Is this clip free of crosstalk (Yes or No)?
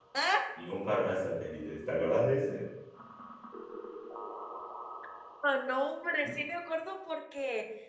Yes